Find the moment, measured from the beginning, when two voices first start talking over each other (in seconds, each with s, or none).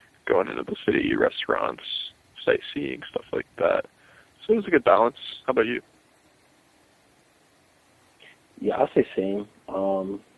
none